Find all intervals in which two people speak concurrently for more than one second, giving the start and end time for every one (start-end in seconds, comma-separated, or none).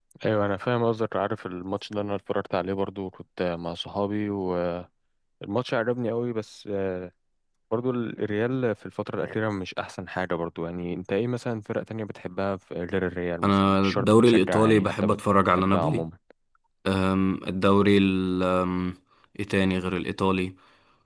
13.4-15.1